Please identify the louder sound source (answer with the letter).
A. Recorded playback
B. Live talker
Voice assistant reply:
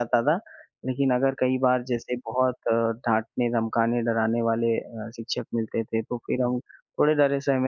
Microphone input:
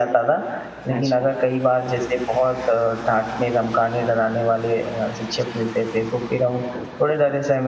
A